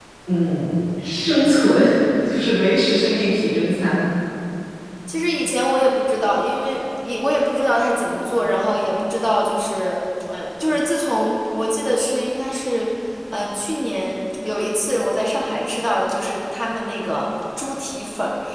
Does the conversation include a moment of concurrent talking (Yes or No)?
No